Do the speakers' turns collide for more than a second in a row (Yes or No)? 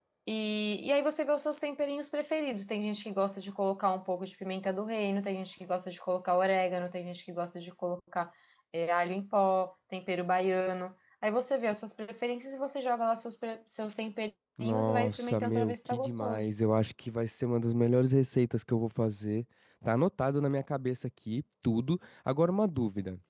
Yes